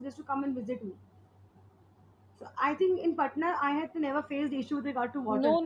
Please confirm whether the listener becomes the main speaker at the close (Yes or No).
Yes